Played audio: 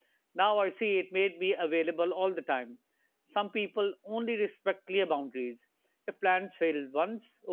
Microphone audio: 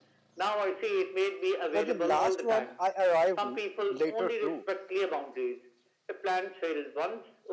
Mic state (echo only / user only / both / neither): both